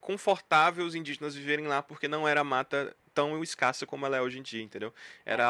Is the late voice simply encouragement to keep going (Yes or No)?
Yes